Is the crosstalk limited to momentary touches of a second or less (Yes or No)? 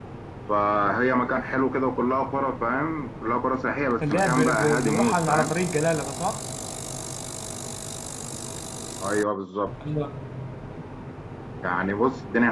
No